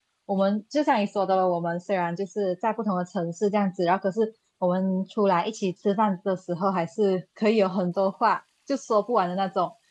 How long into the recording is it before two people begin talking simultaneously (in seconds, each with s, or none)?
none